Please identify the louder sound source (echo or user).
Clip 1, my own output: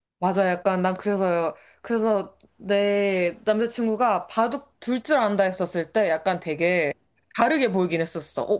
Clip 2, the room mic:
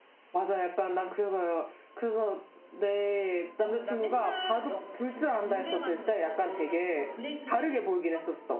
echo